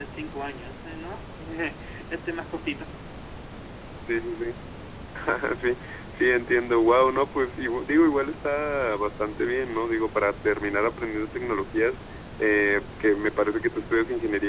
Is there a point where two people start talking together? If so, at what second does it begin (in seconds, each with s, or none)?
none